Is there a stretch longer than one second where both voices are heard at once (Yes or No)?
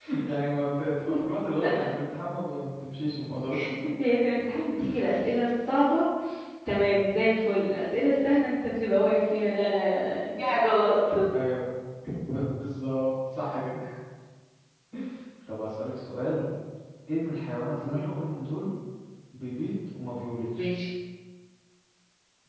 No